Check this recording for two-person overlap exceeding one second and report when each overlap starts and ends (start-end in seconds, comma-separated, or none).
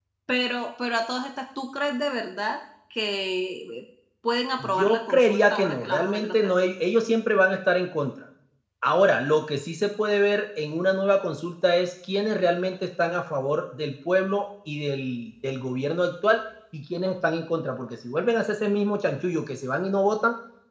4.6-6.5